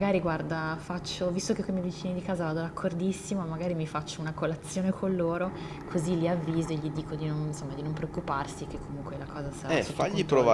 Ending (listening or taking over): taking over